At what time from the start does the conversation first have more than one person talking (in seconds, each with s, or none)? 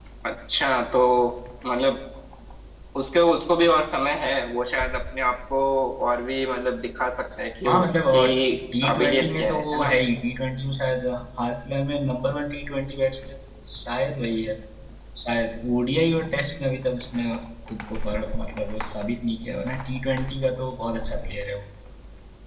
7.7 s